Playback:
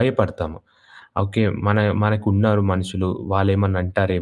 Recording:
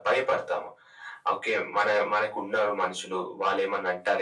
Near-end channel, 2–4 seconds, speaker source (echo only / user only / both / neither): echo only